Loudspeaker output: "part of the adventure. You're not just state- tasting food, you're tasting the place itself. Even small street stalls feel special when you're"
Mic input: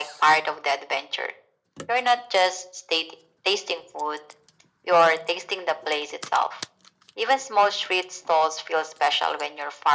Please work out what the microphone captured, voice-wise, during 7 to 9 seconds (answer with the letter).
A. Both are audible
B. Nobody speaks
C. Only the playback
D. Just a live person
C